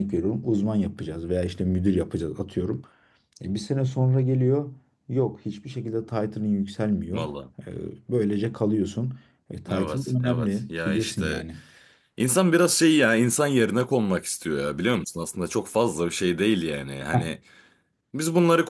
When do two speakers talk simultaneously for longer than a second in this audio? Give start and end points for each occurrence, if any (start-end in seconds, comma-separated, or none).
9.7-11.4